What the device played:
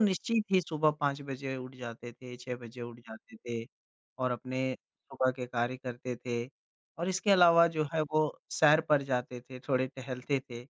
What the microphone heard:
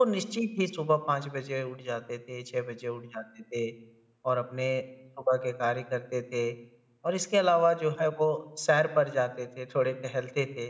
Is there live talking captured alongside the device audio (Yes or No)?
No